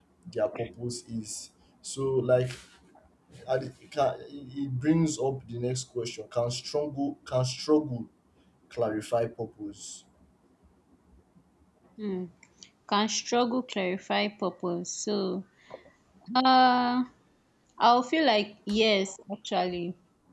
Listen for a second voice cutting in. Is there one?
No

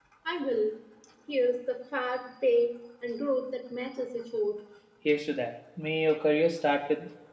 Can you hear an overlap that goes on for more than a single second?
No

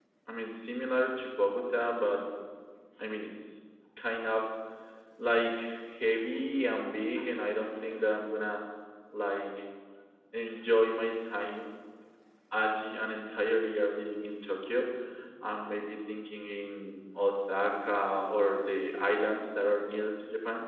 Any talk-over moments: No

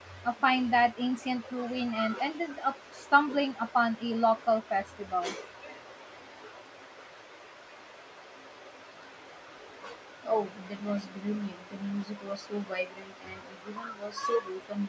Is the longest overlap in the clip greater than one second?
No

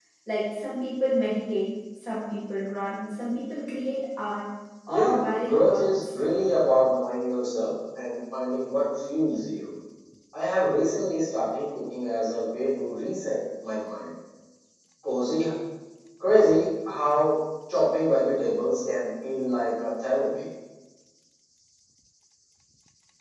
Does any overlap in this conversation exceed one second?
Yes, from 4.9 s

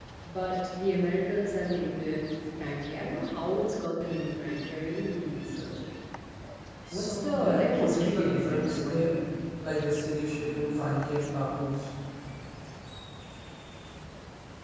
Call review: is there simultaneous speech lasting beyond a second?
Yes, from 6.9 s

